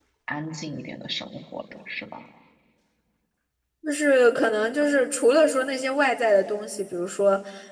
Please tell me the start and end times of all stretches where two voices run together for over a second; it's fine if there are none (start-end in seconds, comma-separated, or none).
none